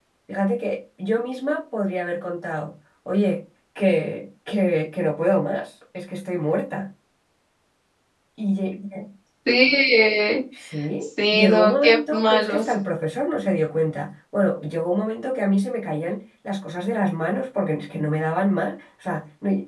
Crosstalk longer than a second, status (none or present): present